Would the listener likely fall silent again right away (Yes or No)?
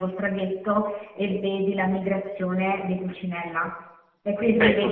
Yes